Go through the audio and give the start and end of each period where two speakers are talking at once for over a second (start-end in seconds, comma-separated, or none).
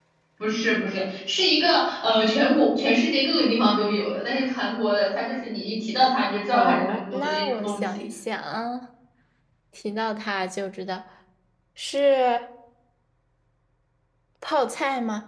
6.5-7.8